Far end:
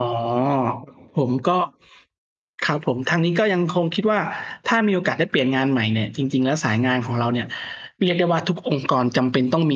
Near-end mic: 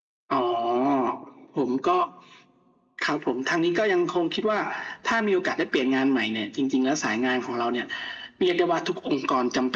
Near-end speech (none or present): none